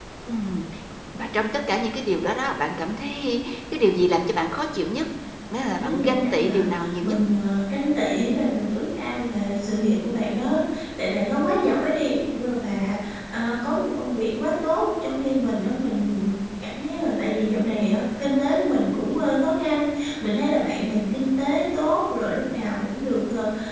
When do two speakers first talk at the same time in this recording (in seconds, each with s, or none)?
5.6 s